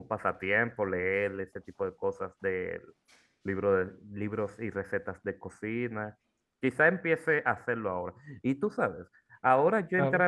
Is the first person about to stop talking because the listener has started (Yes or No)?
No